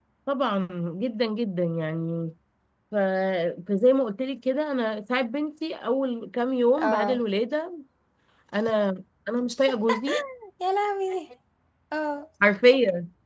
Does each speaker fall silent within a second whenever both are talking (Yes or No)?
Yes